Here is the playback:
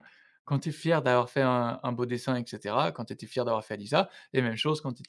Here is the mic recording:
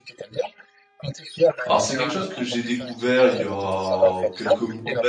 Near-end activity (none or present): present